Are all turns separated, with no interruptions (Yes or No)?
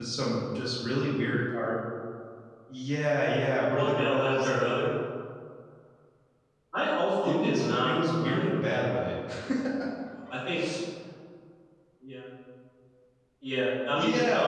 No